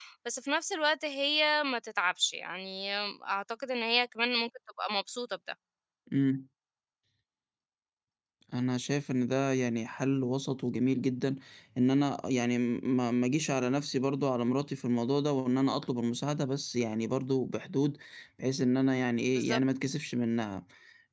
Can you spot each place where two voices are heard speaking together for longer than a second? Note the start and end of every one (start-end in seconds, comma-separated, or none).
none